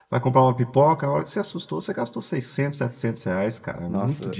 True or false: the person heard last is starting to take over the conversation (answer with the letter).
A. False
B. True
B